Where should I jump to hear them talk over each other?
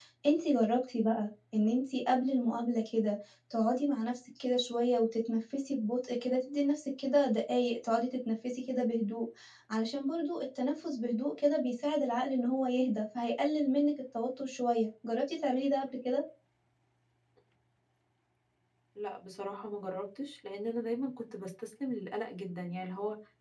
none

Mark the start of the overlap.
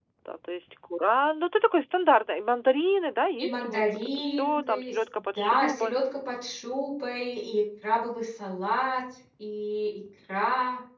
3.4 s

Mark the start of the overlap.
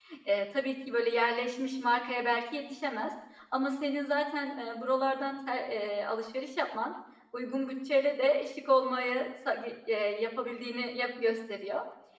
none

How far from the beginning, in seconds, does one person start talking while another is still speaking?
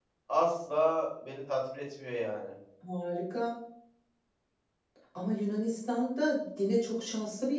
none

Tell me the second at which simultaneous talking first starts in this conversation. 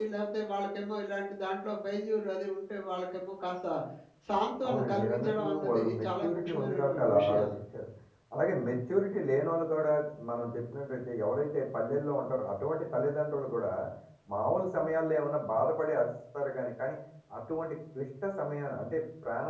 4.7 s

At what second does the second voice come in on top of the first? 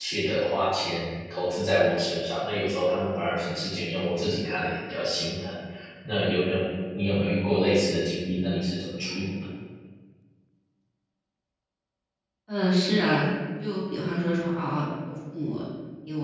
none

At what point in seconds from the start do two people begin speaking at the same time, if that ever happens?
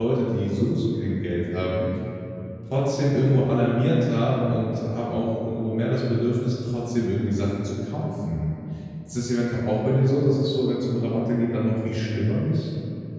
none

